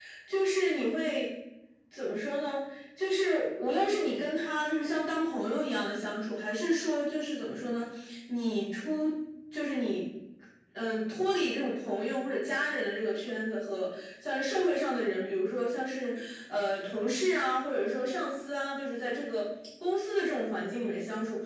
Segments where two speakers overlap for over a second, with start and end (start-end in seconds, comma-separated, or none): none